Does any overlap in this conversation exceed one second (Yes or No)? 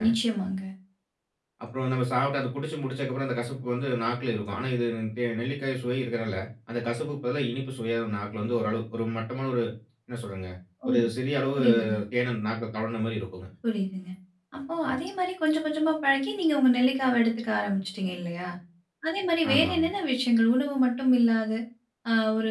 No